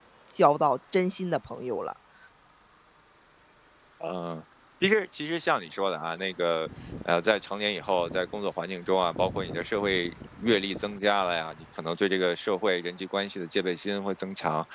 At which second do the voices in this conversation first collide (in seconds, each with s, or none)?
none